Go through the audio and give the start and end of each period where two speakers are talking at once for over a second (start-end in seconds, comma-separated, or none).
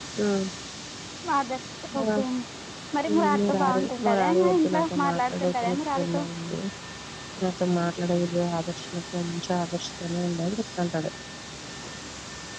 3.2-6.2